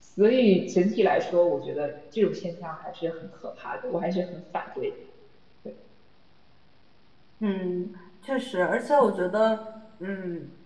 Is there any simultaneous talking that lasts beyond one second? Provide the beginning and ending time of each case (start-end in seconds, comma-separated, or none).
none